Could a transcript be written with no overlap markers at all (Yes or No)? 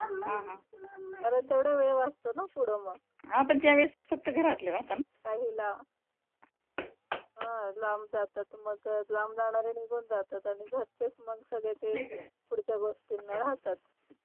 Yes